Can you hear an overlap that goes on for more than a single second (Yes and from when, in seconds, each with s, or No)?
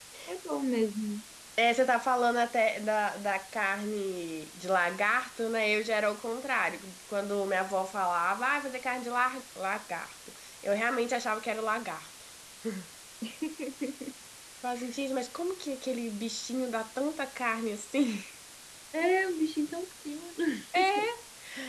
No